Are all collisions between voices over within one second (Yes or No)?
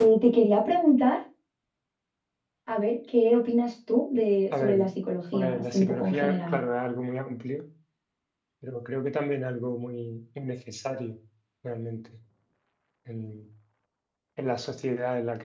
No